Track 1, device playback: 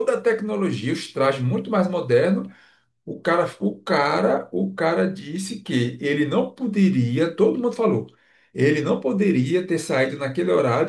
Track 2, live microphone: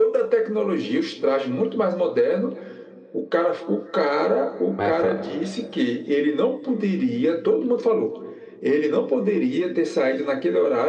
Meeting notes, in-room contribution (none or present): present